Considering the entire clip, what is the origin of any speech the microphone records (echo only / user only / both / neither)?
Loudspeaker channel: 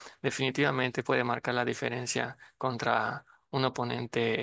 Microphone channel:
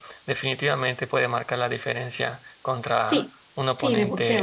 both